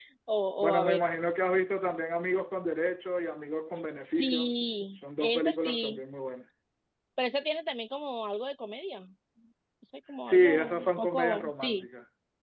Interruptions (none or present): present